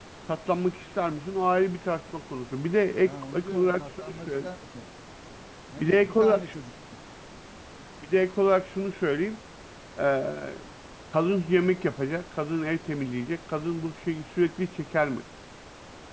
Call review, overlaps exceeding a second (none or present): present